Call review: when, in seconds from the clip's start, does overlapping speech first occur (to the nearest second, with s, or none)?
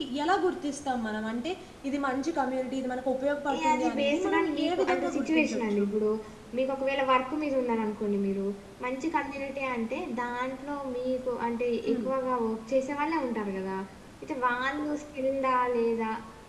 3 s